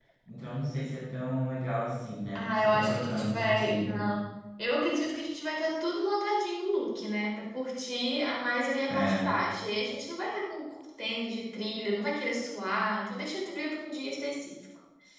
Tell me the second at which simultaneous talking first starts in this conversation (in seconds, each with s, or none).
2.4 s